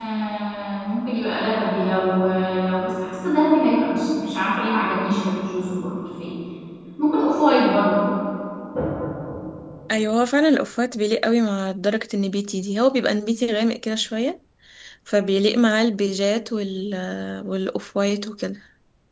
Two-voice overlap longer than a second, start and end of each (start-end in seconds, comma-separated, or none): none